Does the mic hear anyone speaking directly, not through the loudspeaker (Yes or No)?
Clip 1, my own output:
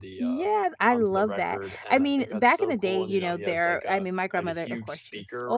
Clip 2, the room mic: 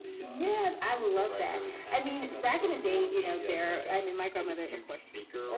No